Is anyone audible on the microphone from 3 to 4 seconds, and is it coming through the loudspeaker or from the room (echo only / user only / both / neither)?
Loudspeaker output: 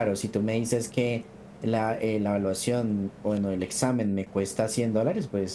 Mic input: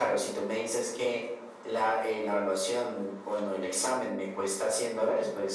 echo only